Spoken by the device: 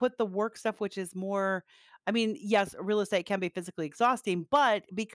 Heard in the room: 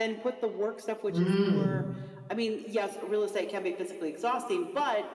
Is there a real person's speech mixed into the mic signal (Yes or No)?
Yes